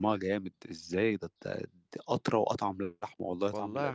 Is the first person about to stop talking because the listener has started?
Yes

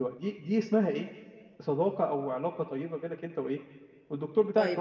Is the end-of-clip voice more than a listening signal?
Yes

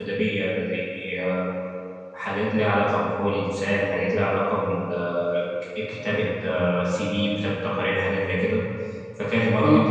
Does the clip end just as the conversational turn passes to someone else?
No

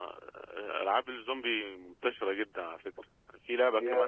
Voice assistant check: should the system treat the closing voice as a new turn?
No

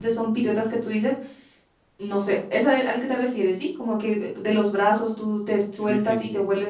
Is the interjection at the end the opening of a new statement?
Yes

